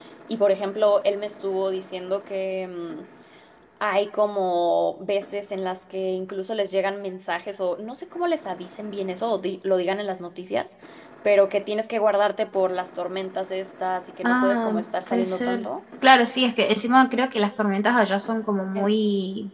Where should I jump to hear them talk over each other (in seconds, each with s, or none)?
14.2 s